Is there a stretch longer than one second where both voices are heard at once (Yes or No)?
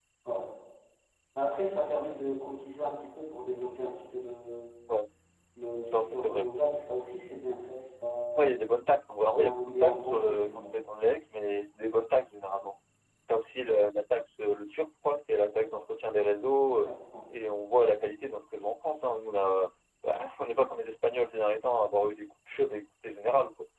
Yes